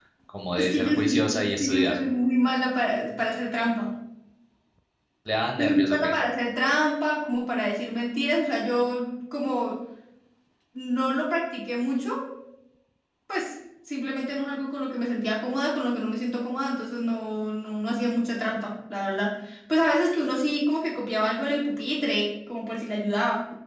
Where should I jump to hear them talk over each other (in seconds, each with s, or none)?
0.6 s